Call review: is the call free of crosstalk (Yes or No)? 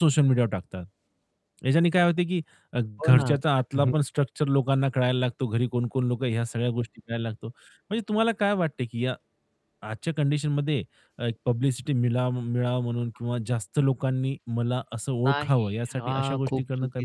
No